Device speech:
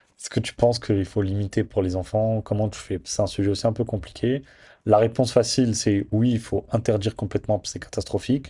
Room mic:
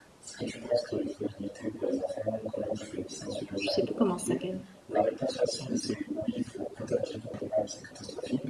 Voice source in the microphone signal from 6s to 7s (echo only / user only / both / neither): echo only